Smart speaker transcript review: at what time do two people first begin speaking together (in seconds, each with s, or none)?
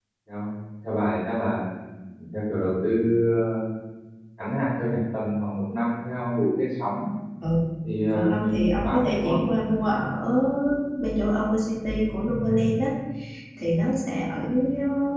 8.1 s